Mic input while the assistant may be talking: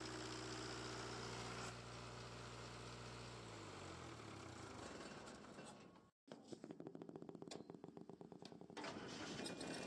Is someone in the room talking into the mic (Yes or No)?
No